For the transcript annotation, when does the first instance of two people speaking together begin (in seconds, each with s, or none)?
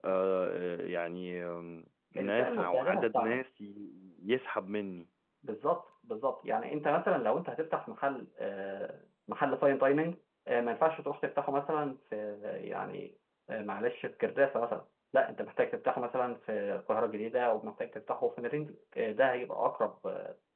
2.2 s